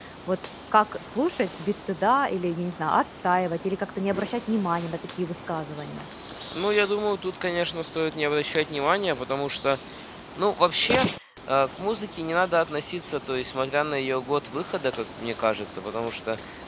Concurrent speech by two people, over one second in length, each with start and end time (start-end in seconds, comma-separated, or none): none